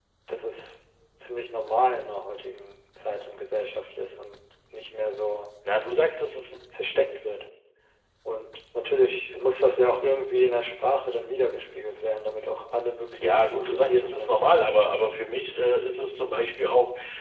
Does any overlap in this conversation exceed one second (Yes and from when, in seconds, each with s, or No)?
Yes, from 13.2 s